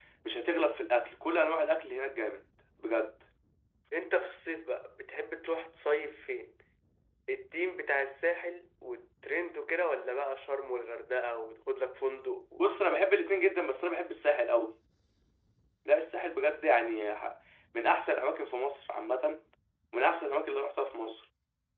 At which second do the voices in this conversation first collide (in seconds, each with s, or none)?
none